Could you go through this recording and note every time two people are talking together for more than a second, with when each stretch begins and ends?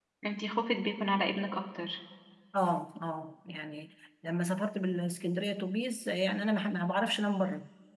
none

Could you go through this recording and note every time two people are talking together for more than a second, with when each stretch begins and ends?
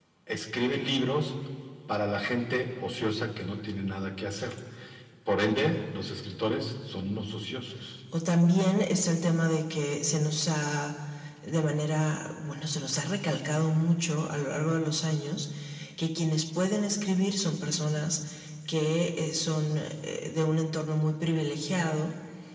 none

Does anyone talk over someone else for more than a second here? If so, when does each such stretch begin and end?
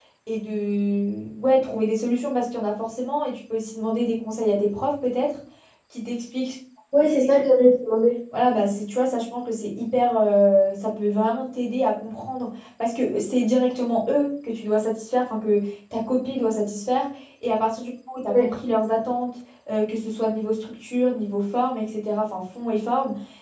none

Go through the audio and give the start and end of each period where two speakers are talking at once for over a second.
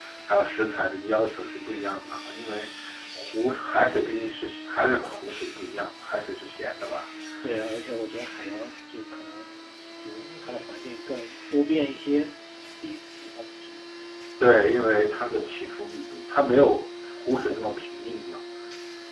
none

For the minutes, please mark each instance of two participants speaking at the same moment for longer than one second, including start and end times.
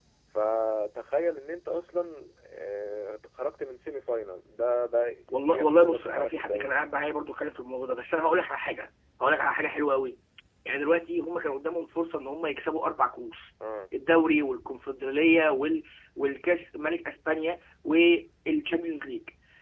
5.5-6.7

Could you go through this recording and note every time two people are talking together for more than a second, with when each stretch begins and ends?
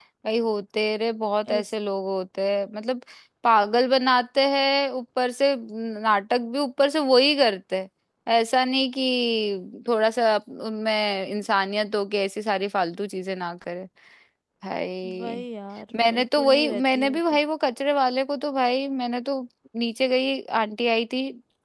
15.9-17.2

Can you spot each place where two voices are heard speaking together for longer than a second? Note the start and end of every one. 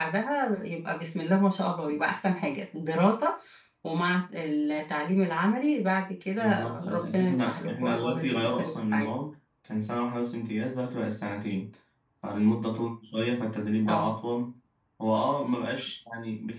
6.4-9.1

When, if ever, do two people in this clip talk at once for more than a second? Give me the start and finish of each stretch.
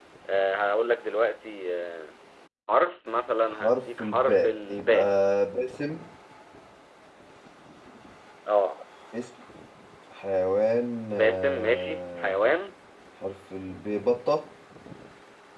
3.5-5.0, 11.1-12.4

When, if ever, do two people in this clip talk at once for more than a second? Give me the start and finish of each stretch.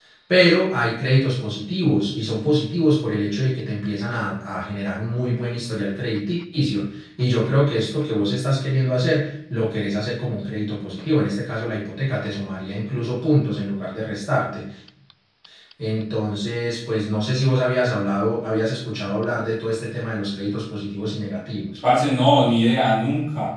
none

